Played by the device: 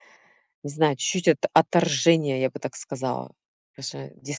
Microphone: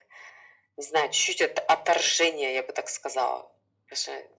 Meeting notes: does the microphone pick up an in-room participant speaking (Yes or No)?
No